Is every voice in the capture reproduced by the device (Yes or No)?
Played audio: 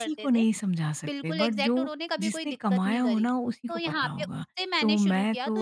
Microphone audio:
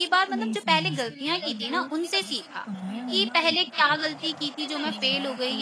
No